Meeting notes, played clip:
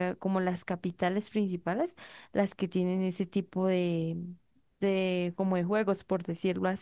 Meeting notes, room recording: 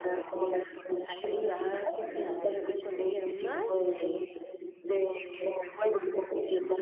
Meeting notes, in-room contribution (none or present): present